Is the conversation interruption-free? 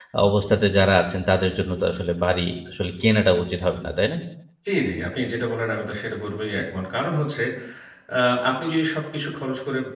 Yes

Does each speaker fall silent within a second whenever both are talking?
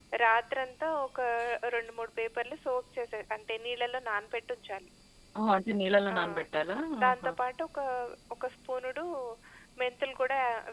Yes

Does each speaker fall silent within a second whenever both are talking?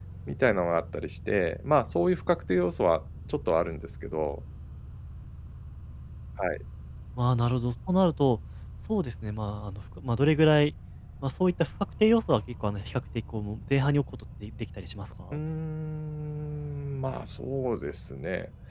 Yes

